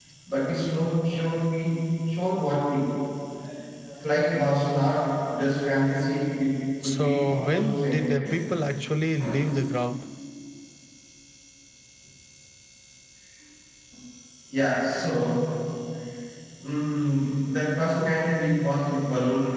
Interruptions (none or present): present